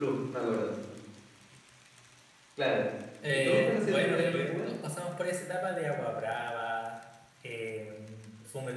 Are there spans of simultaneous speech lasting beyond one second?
Yes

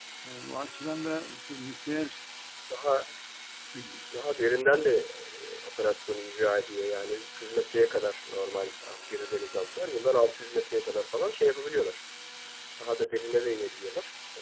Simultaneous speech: No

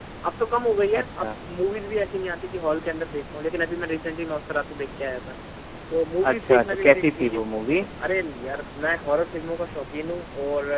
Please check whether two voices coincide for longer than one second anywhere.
Yes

